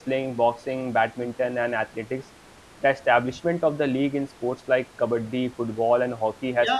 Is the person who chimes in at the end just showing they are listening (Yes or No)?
No